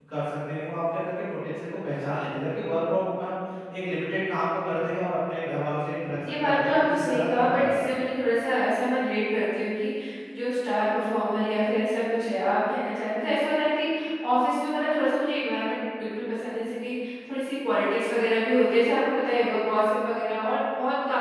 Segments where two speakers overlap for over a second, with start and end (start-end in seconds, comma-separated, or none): 6.3-7.8